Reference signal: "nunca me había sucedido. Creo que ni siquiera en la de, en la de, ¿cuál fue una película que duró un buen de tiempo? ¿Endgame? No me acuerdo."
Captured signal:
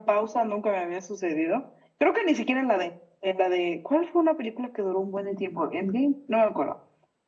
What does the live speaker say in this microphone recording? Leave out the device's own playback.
none

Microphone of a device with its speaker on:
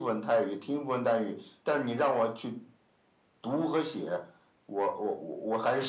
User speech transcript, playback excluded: none

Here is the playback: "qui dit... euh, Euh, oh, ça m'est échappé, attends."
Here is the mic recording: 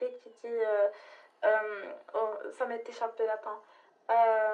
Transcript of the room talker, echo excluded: none

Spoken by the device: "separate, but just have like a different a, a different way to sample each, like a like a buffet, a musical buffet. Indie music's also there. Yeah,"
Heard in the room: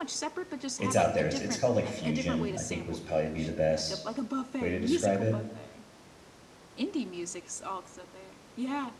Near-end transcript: it's out there. It's, it's called like fusion. I think was probably be the best way to describe it.

